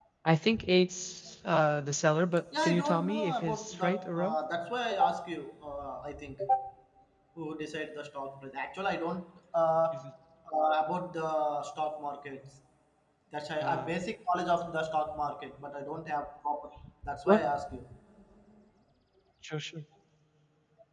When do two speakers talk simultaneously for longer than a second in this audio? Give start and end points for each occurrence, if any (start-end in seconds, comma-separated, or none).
2.6-4.3